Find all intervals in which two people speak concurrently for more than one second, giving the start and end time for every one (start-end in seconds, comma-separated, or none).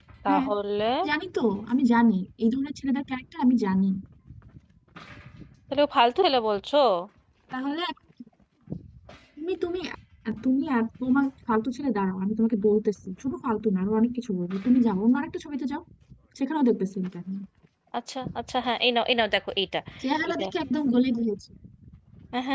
none